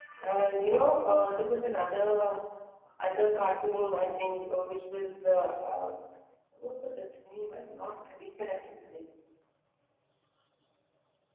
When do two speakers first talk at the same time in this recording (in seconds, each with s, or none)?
none